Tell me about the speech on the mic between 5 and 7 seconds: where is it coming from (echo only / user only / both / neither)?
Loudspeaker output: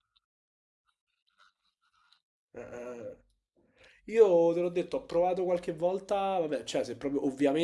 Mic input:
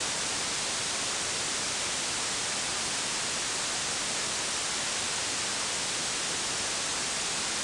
neither